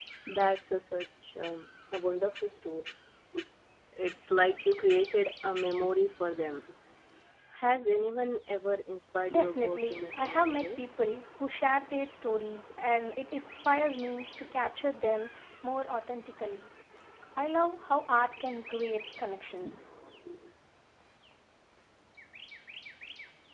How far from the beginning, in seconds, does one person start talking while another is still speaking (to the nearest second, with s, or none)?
9 s